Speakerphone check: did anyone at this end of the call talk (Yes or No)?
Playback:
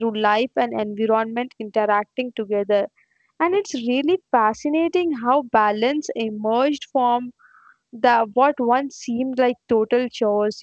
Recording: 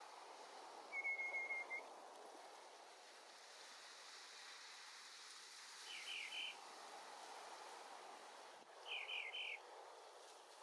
No